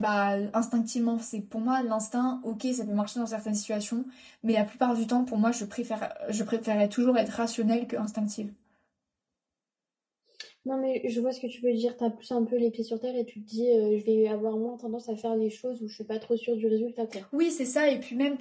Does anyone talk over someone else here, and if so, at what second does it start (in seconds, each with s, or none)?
none